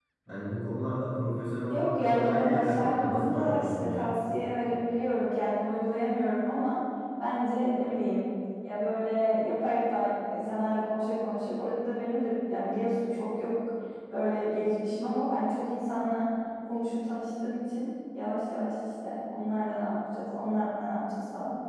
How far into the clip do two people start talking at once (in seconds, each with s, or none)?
1.7 s